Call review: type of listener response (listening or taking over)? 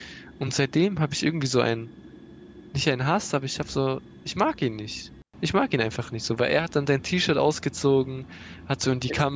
listening